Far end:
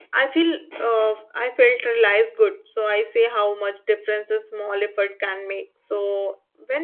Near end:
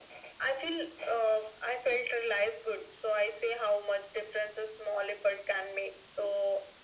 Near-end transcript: none

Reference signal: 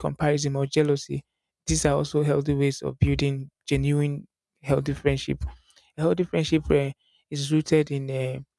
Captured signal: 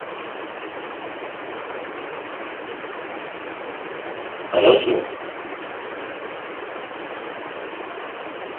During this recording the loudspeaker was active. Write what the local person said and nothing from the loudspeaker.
And also,

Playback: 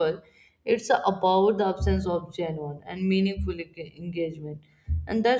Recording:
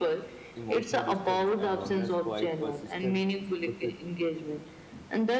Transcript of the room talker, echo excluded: emotional distance and loneliness quite persistent, persist

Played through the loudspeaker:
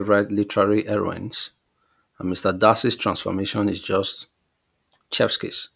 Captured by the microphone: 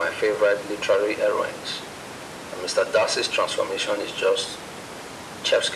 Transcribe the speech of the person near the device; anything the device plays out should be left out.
none

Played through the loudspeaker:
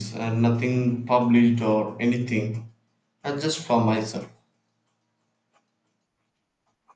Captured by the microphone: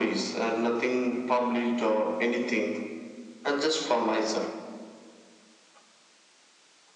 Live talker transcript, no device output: none

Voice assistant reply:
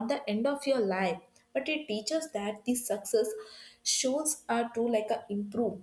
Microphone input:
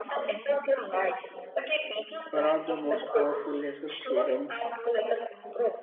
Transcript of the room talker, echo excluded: Perhaps the most powerful lesson freedom

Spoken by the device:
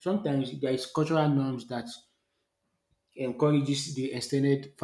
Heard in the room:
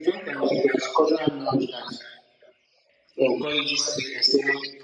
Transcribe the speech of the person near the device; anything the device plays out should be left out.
none

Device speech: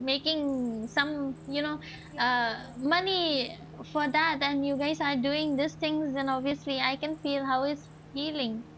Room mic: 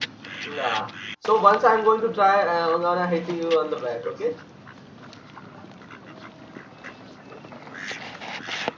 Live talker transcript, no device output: nah. So once I'm going to try, uh, I'm gonna hit you on the back. Okay.

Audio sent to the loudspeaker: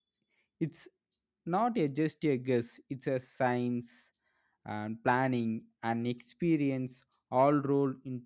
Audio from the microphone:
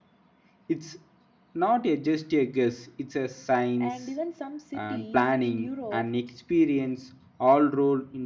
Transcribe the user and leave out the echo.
and even some cities in Europe

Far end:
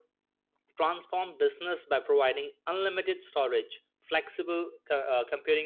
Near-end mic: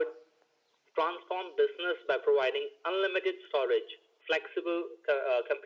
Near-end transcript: none

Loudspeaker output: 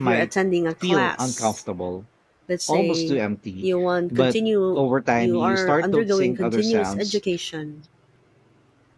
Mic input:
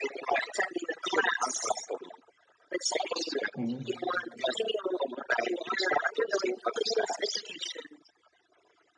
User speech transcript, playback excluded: Mhm.

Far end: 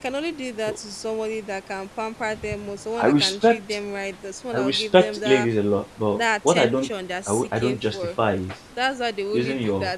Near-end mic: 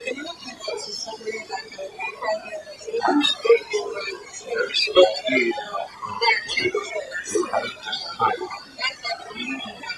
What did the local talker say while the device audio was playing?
none

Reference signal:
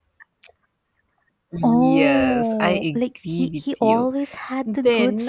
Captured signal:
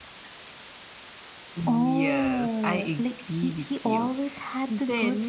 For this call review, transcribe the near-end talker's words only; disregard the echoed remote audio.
none

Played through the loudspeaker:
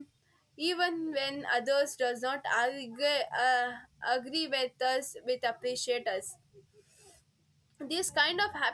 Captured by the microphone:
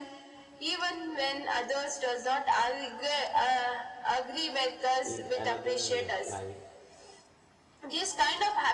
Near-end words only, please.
in another life.

